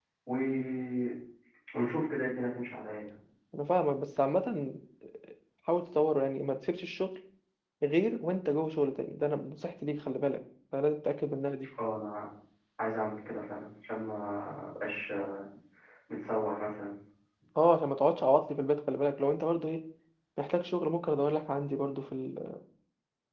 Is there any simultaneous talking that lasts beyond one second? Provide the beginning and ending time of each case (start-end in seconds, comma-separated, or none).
none